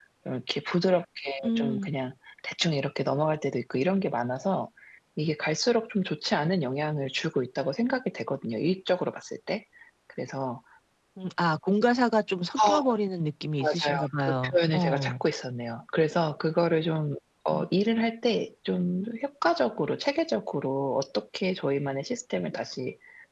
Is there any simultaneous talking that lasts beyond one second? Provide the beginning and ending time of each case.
13.6-15.1

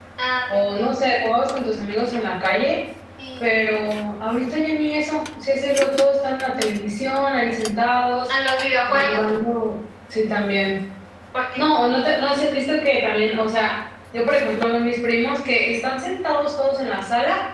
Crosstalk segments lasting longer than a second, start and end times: none

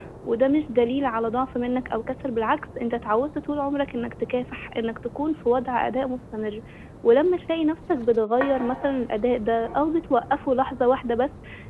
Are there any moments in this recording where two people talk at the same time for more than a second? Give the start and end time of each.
none

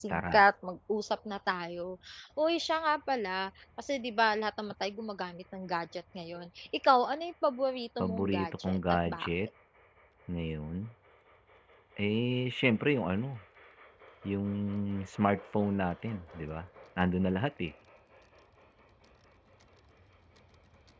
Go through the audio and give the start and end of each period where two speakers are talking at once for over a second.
8.0-9.3

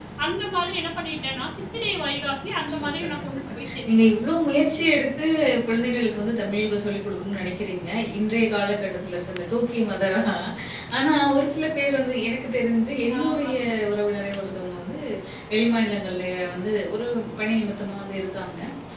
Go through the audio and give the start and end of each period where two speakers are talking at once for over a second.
2.7-4.1

